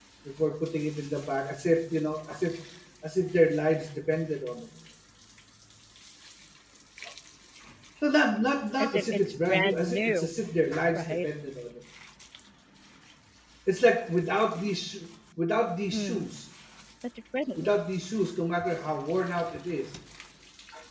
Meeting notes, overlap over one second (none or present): present